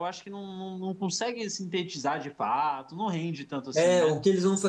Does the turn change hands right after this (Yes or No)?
Yes